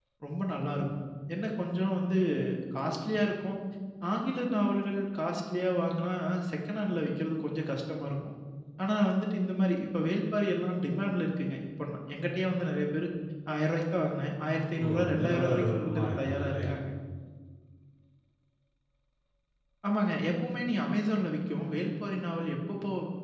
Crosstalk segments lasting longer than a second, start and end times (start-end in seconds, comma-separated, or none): 14.8-16.7